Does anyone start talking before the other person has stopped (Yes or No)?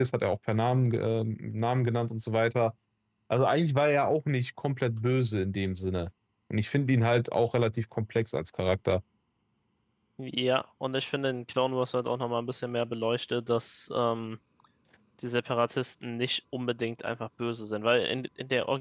No